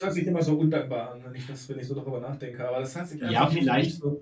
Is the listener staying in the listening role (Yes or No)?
No